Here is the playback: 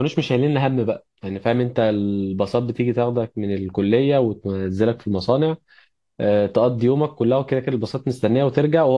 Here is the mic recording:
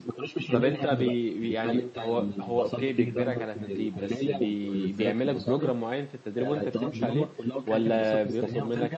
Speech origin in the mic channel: both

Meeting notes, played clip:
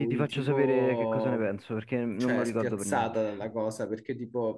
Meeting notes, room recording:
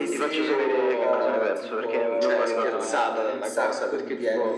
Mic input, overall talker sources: both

